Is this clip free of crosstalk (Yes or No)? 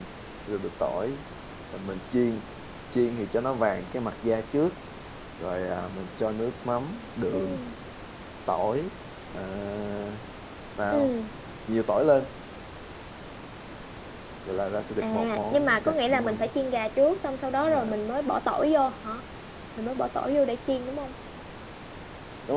No